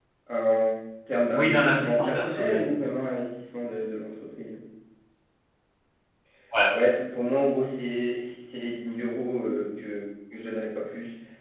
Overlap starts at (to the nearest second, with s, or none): 1 s